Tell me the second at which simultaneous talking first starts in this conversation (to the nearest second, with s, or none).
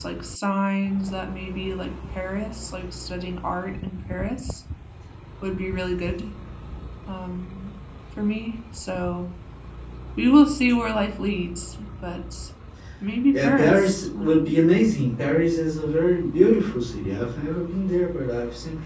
13 s